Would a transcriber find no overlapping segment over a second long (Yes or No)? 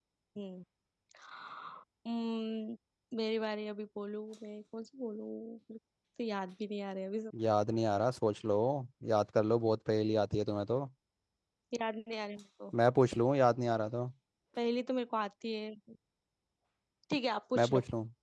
Yes